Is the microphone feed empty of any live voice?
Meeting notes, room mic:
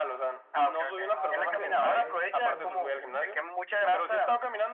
No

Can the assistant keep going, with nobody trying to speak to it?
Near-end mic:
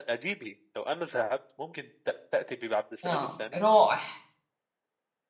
No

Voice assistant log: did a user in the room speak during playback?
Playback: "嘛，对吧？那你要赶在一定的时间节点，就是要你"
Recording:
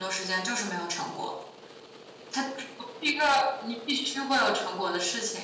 Yes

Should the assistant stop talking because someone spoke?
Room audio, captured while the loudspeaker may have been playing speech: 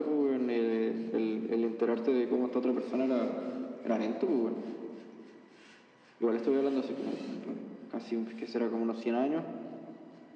No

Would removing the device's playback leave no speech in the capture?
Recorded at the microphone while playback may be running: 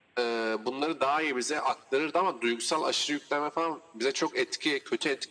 Yes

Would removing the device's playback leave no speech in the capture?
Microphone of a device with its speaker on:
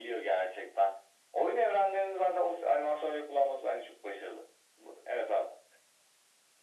Yes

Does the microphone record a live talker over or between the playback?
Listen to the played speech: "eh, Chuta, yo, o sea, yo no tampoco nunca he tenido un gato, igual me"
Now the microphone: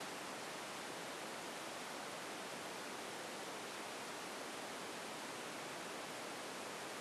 No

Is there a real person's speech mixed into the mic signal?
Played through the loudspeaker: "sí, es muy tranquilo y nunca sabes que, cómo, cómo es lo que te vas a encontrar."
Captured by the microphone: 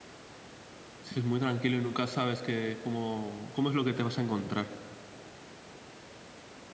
No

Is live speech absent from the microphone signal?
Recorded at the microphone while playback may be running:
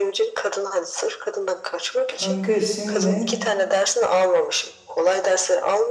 No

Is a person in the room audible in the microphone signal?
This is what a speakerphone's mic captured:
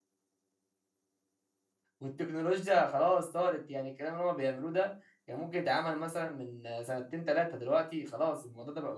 Yes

